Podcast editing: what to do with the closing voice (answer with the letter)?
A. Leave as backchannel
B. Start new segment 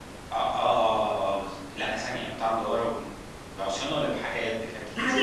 B